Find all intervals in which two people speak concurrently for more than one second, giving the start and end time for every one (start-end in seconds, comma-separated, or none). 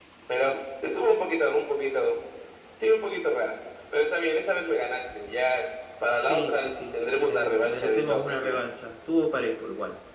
6.2-8.6